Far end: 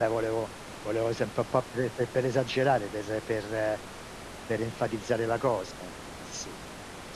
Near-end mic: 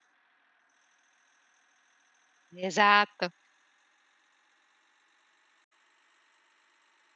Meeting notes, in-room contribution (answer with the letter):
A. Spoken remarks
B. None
A